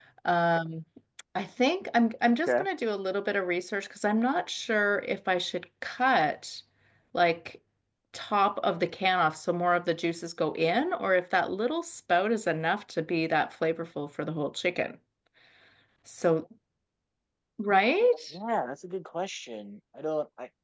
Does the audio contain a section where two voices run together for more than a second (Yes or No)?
No